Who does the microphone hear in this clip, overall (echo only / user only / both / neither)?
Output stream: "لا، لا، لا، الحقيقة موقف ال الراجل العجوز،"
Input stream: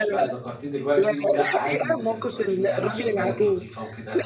both